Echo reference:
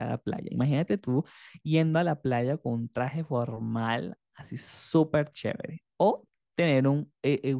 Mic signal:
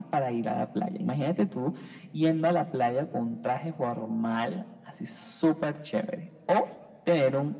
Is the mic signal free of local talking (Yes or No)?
Yes